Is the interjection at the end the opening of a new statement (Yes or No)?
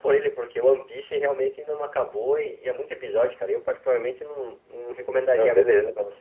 Yes